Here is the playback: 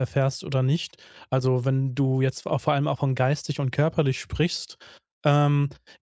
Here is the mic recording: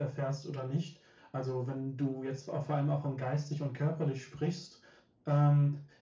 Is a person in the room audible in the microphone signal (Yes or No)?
No